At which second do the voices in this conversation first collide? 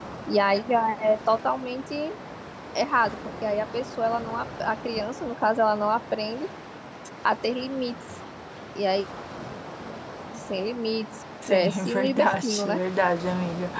11.4 s

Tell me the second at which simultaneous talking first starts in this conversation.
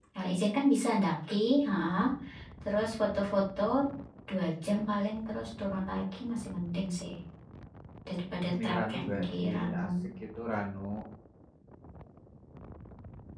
8.5 s

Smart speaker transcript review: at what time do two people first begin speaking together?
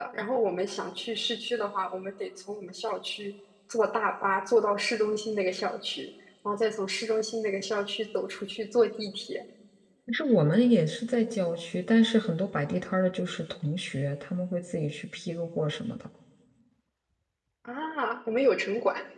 none

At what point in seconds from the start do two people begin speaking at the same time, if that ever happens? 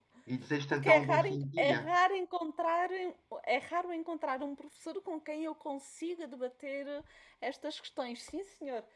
0.7 s

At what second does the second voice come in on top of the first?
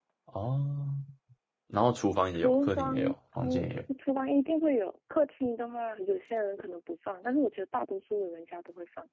2.3 s

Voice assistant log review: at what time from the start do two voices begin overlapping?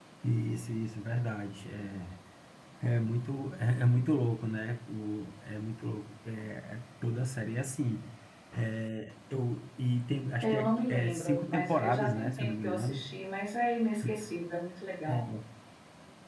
10.4 s

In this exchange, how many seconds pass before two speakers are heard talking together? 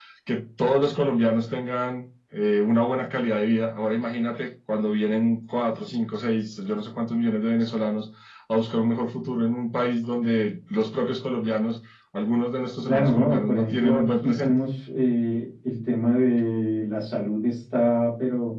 12.9 s

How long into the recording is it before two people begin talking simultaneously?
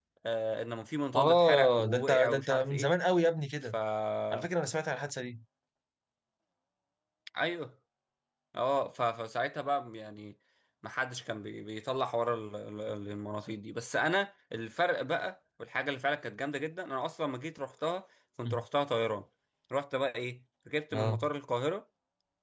1.1 s

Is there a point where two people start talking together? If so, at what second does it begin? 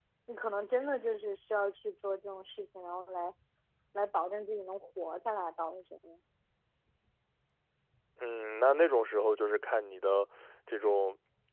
none

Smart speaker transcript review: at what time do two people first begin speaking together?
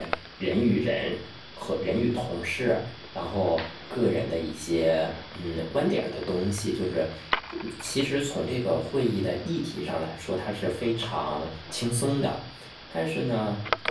none

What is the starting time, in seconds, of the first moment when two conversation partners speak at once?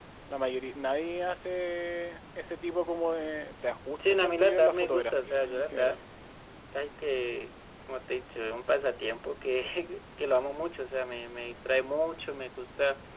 4.0 s

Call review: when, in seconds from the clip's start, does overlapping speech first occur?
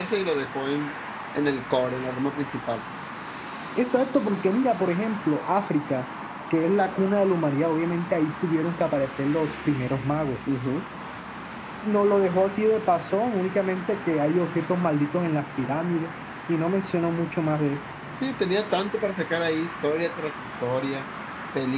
none

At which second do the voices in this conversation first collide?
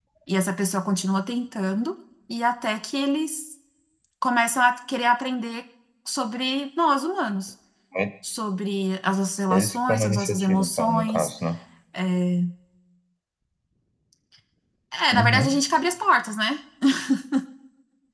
9.5 s

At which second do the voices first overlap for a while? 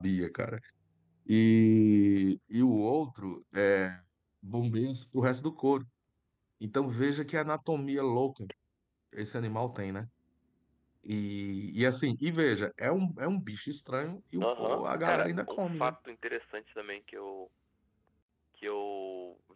14.4 s

